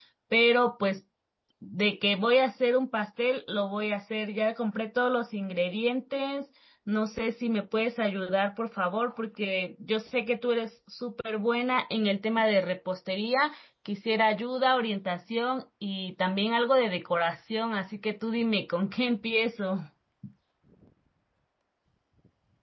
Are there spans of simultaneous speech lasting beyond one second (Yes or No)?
No